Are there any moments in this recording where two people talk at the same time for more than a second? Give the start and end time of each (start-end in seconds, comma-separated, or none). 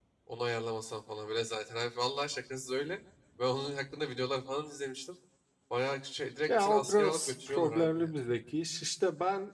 6.5-8.1